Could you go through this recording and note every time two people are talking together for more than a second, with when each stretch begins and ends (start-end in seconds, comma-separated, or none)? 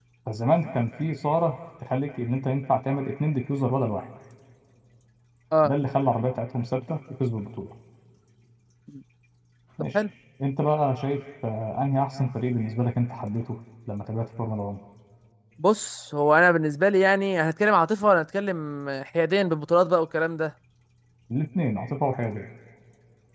none